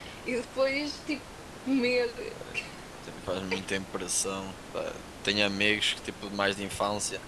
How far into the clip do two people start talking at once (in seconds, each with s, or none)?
none